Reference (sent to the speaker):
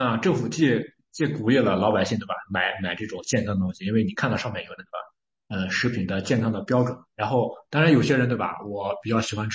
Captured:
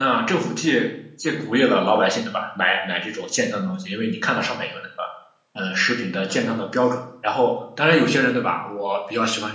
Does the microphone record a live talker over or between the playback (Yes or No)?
No